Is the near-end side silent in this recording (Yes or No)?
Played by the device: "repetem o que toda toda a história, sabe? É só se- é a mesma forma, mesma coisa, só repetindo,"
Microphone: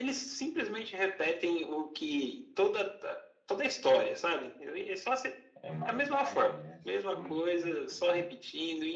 No